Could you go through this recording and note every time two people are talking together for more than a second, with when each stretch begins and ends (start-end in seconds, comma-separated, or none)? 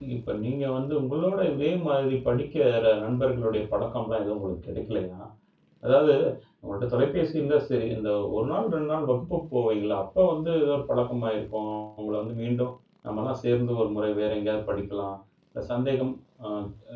none